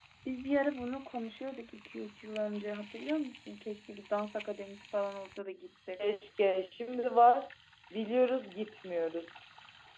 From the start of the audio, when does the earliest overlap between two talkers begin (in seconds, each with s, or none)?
none